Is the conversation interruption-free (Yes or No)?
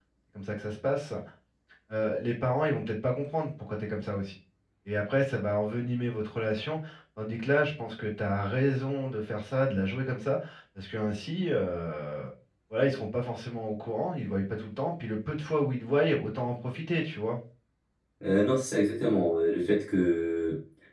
Yes